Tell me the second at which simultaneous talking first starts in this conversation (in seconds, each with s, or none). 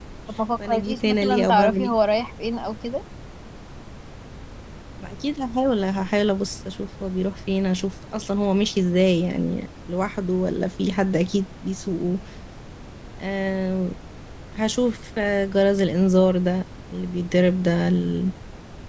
0.6 s